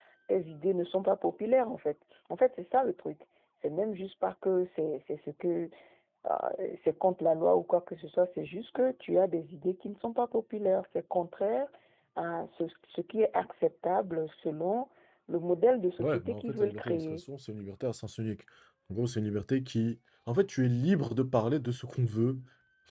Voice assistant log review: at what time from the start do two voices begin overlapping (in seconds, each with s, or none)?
16.0 s